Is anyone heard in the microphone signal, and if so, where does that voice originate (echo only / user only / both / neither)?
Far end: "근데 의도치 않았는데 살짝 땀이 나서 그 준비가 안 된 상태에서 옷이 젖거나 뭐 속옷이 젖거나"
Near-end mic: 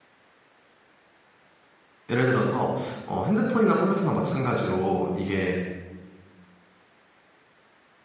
user only